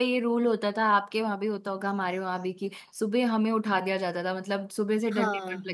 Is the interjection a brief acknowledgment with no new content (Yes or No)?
Yes